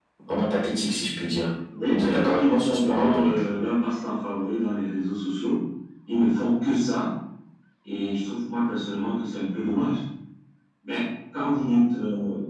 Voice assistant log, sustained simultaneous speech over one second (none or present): present